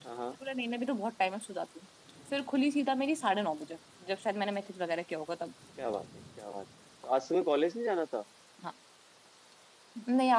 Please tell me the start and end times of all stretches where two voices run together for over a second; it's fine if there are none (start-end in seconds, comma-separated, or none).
none